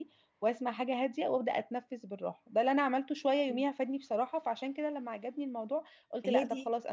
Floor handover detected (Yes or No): No